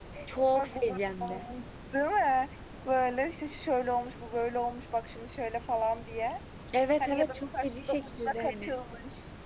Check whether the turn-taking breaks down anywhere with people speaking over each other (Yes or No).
Yes